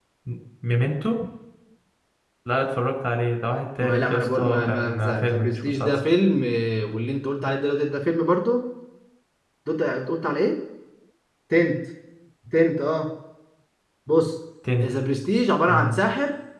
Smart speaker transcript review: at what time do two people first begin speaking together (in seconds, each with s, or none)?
3.8 s